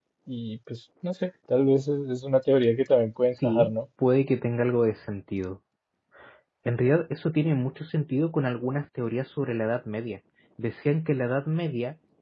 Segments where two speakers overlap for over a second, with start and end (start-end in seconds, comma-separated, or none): none